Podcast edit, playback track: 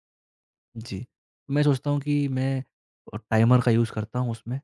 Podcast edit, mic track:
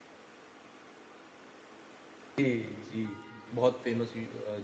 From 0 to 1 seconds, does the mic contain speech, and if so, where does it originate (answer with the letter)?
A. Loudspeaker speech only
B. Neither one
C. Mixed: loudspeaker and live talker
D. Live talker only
B